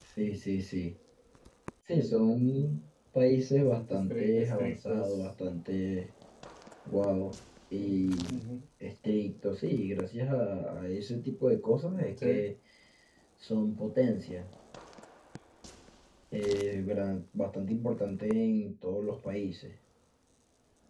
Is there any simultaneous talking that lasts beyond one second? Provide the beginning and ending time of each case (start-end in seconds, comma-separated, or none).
3.7-5.2